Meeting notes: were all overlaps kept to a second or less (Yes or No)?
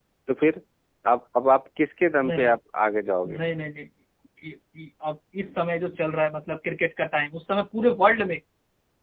Yes